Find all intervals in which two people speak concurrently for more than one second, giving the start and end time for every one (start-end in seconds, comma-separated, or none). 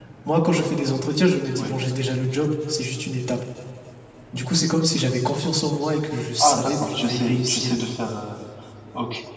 6.4-7.7